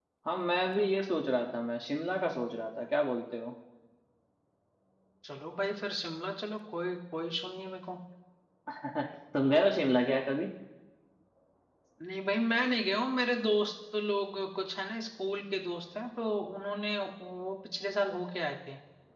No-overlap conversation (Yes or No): Yes